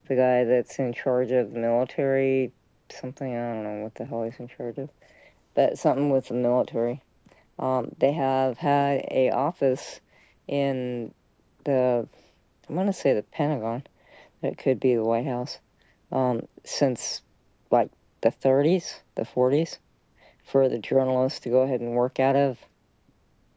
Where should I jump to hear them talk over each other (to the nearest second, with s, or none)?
none